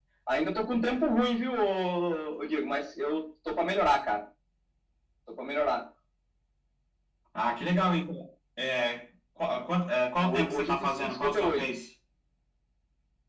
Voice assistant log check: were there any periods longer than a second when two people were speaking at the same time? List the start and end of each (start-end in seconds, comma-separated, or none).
10.2-11.6